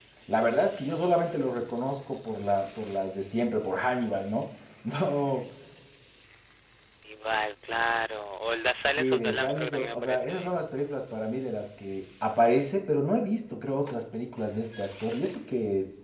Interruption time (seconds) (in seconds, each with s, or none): 9.0 s